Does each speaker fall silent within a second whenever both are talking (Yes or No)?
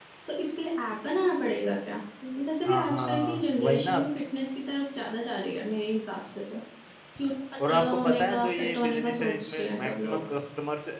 No